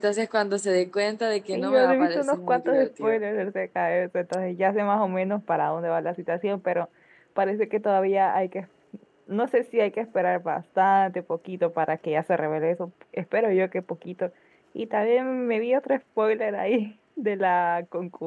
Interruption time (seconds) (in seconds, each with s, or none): 1.5 s